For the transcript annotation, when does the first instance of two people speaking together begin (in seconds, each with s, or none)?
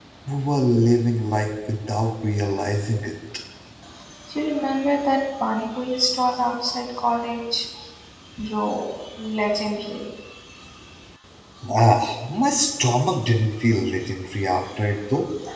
none